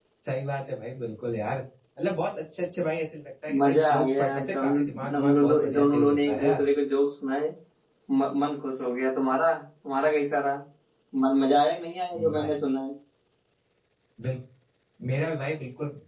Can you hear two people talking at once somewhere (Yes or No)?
Yes